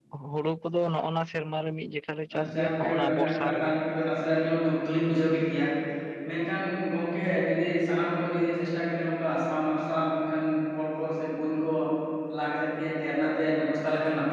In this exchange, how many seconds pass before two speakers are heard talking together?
2 s

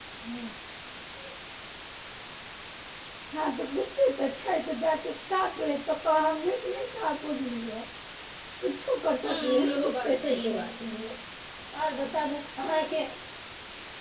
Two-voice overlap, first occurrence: 9 s

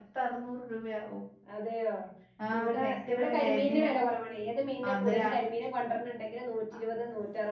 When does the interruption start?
3 s

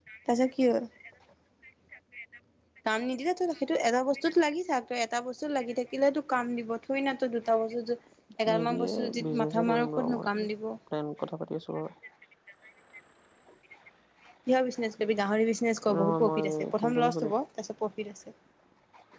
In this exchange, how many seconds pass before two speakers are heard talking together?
9 s

